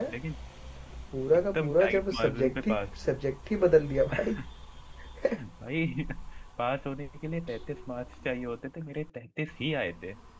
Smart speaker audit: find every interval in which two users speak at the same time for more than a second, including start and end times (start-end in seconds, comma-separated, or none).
1.3-2.8